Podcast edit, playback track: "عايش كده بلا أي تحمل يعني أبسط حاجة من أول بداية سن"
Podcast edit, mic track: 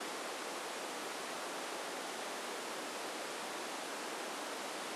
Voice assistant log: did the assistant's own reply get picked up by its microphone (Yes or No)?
No